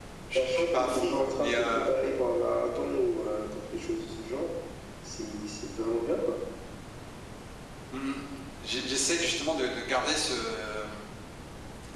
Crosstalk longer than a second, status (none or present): present